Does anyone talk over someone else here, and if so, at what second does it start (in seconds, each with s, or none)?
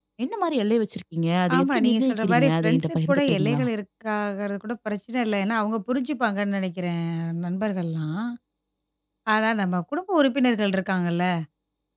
1.5 s